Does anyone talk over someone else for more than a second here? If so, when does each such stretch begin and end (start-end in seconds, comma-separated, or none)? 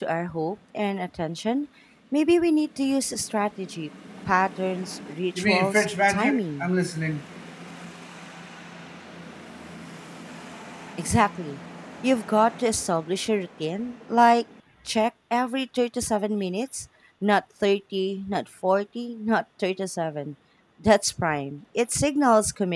5.4-6.7